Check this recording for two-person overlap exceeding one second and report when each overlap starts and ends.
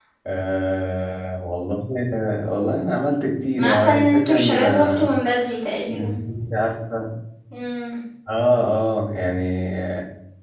3.6-5.2

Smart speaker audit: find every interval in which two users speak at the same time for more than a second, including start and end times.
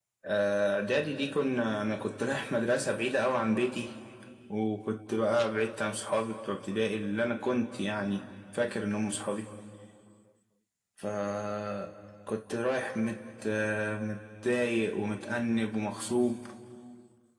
none

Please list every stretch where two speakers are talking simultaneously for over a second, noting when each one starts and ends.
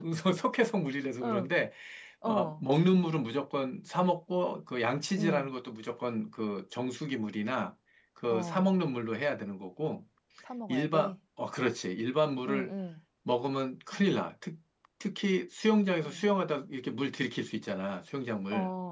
none

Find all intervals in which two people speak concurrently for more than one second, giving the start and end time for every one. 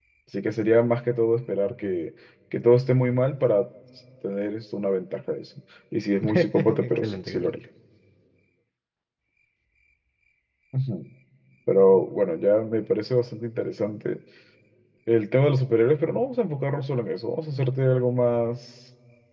6.2-7.6

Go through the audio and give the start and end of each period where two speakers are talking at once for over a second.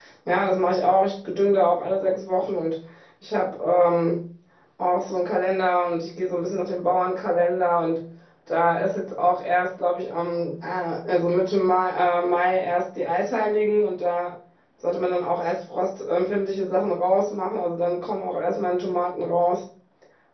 none

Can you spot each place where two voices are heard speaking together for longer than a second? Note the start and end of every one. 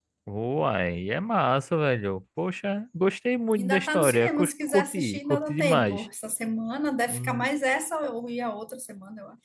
3.5-6.1

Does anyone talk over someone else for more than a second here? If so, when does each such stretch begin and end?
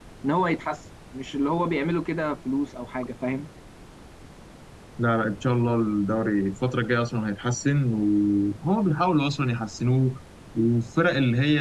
none

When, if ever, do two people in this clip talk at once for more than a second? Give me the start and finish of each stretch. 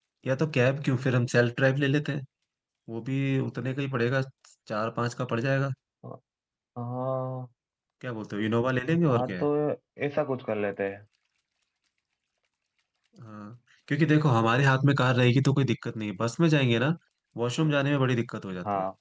none

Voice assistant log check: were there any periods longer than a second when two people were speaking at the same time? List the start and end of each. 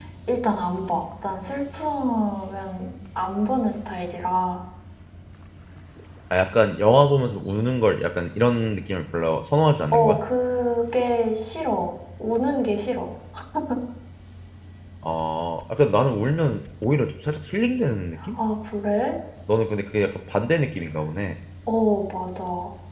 none

